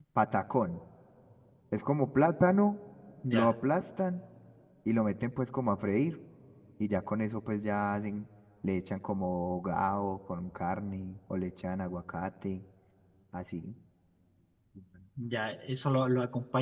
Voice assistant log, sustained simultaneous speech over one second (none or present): none